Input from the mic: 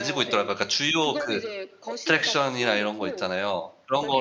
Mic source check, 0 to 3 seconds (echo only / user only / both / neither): both